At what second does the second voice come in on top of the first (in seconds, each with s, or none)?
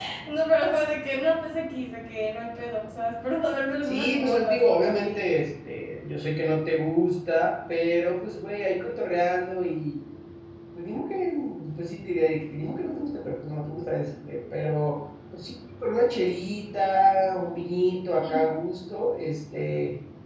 3.8 s